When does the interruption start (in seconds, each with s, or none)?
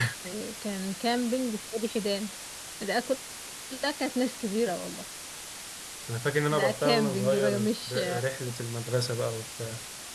6.5 s